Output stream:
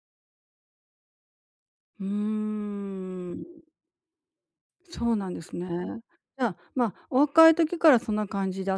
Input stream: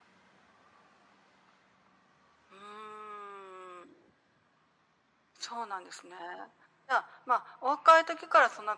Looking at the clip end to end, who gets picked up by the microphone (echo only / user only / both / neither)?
echo only